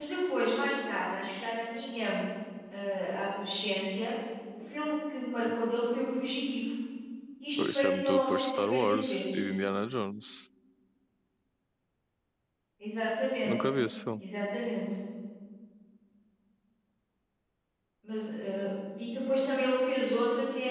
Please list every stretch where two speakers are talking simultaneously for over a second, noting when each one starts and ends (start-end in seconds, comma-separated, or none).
7.6-9.4